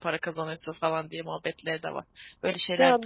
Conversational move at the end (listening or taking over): taking over